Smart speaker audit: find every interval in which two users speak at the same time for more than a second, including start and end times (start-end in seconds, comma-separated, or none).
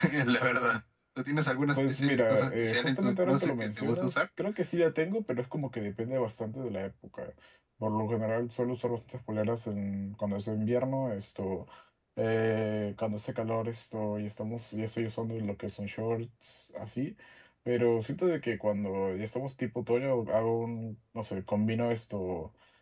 1.8-4.2